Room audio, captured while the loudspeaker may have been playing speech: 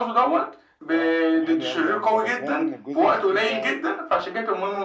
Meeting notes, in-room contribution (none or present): present